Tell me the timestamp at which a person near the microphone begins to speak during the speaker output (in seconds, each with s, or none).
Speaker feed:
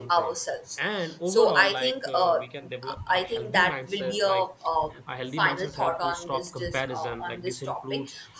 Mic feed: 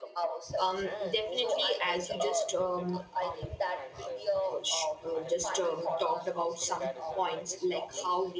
0.6 s